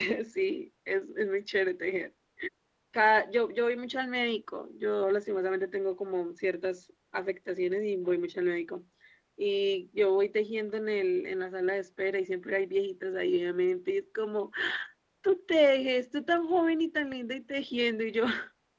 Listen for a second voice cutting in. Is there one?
No

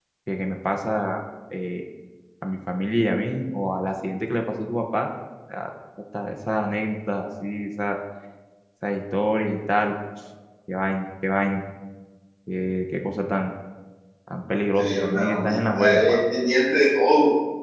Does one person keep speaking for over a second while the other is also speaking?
Yes, from 14.8 s

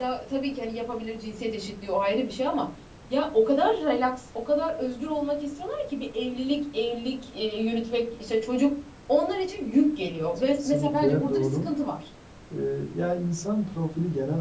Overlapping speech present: Yes, from 10.0 s

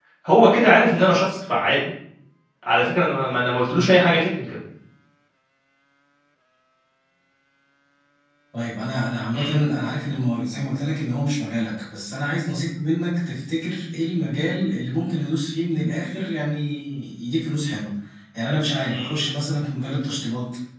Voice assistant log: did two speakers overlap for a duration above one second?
No

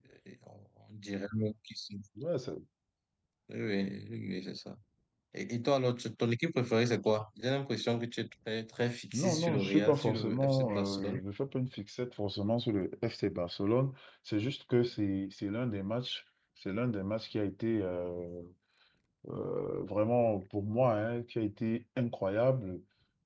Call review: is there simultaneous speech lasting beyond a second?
Yes, from 9.1 s

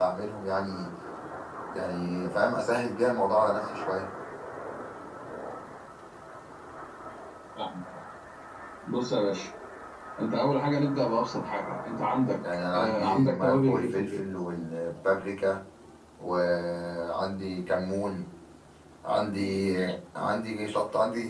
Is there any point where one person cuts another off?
Yes, from 12.7 s

